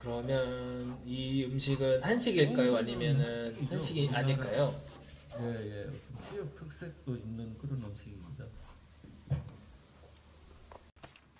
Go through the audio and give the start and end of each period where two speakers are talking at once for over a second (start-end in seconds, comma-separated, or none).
2.4-4.7